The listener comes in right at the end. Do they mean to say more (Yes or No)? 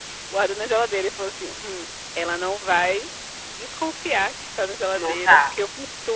No